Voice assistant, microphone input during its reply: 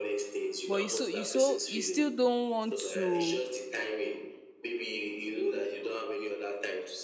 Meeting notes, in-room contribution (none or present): present